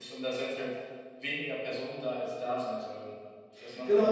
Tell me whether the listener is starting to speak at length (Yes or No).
Yes